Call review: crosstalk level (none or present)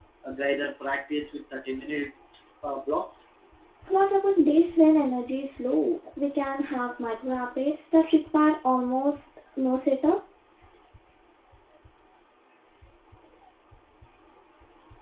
none